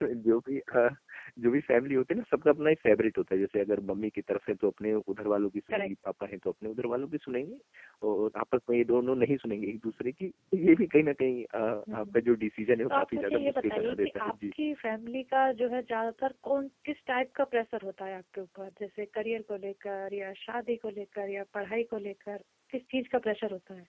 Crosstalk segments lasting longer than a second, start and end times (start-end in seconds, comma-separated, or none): 12.9-14.5